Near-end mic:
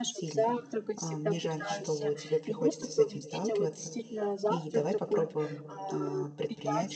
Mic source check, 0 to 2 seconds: both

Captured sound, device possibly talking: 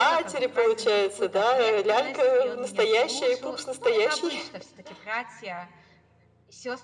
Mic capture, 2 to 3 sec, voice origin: both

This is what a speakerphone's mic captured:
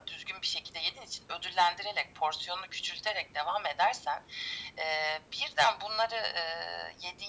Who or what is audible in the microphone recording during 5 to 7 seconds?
echo only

